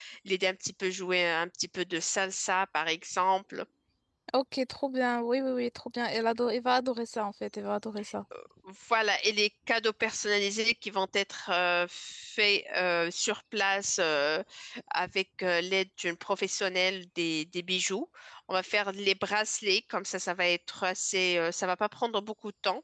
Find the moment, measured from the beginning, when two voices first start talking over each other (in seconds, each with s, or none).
none